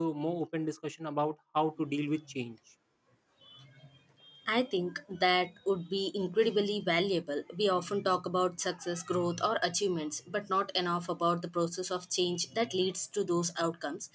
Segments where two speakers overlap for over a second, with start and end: none

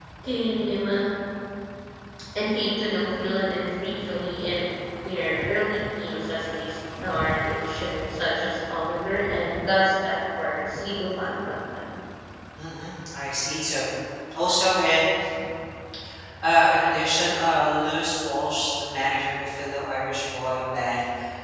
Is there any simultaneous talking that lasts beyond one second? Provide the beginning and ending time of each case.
none

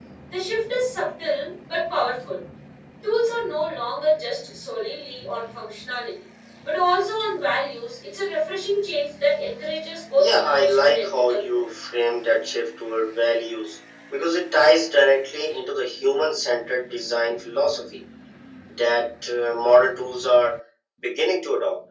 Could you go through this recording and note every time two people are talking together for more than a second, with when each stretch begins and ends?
10.2-11.6

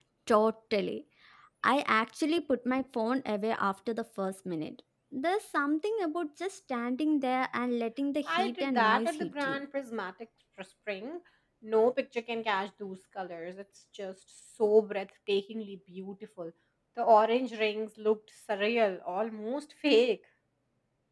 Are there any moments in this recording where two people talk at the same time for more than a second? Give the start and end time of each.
8.3-9.6

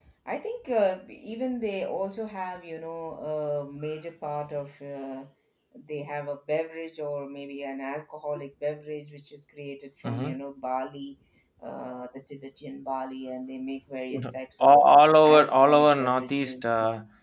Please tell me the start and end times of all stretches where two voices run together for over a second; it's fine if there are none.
15.2-16.6

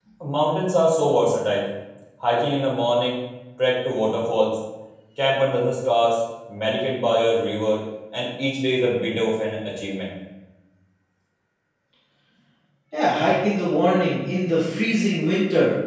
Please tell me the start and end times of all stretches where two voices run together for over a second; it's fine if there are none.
none

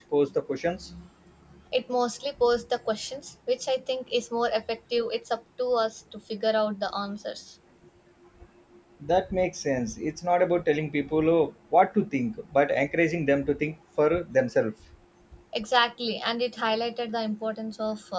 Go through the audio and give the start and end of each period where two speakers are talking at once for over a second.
none

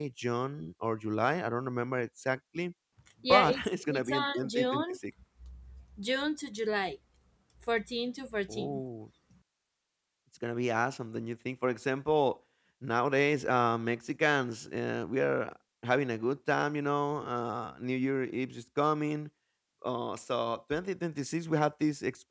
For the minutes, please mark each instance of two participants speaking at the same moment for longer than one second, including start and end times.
3.3-5.0

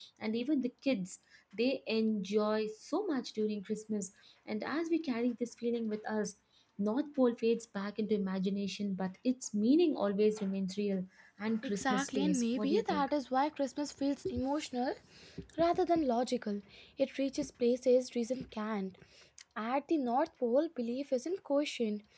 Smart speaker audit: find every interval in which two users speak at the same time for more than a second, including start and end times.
11.8-13.1

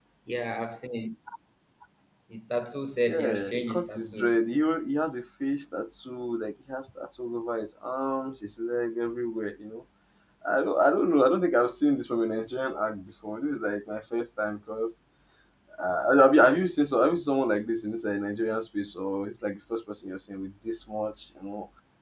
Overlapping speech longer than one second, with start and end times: 3.1-4.4

